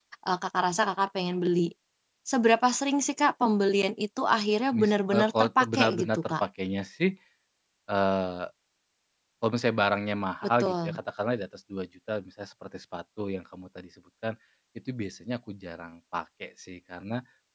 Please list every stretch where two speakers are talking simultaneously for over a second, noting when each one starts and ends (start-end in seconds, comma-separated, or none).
4.7-6.4